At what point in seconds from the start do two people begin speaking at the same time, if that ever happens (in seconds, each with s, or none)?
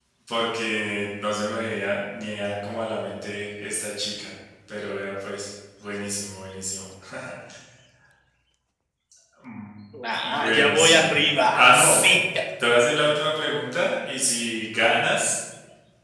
10.4 s